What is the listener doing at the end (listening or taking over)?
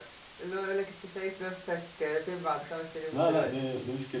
taking over